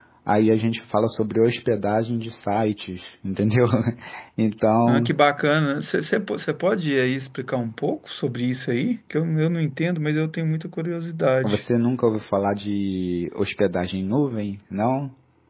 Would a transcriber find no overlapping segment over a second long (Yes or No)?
Yes